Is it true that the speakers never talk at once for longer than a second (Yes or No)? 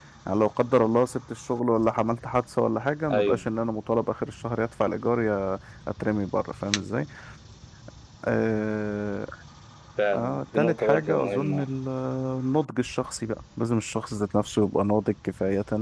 No